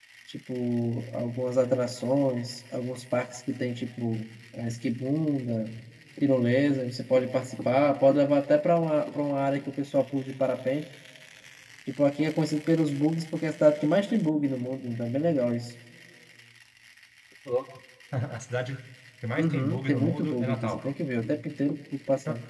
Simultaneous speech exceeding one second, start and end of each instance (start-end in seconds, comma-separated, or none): 19.4-20.8